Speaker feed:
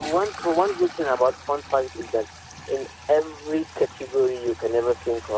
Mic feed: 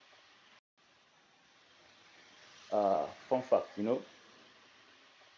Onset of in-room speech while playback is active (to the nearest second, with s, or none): 3 s